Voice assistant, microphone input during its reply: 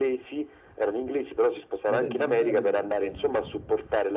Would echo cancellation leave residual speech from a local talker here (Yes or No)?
Yes